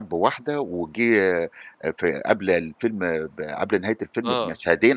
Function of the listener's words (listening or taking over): listening